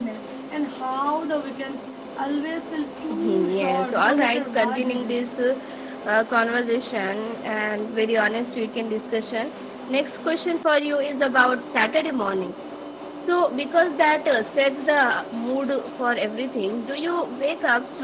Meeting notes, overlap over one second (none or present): present